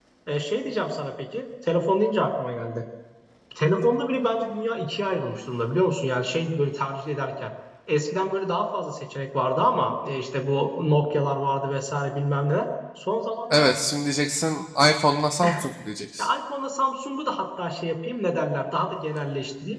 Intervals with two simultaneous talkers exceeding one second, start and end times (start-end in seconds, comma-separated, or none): none